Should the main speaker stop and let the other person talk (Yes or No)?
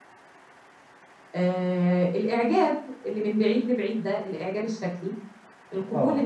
No